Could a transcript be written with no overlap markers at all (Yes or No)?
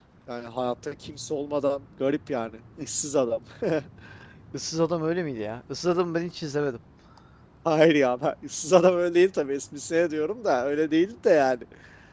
Yes